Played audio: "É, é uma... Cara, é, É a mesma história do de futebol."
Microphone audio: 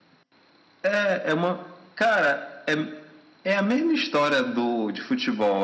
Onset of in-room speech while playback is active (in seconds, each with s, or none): none